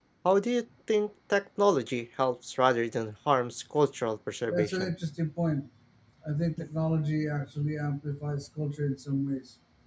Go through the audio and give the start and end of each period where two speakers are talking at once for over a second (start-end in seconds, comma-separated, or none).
none